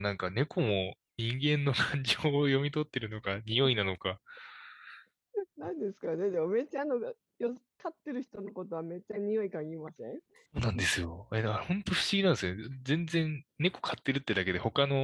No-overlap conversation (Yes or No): Yes